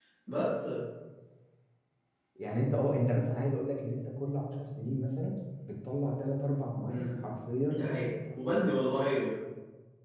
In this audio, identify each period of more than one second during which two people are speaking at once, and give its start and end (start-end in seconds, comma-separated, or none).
none